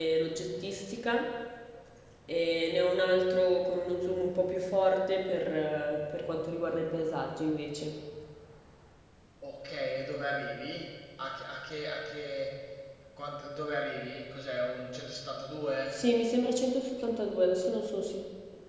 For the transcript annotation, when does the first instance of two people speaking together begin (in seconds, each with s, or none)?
none